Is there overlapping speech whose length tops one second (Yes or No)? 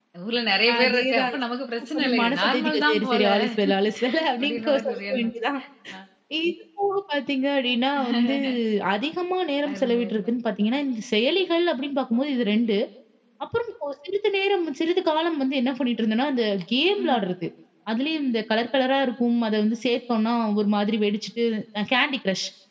Yes